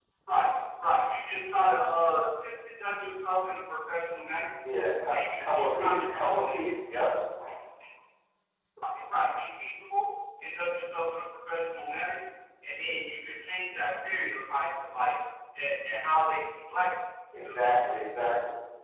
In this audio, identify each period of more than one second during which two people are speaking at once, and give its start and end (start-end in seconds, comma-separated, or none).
5.1-6.5